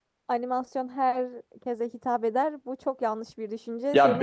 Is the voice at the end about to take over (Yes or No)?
Yes